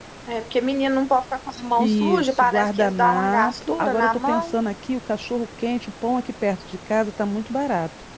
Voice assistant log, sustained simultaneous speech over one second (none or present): present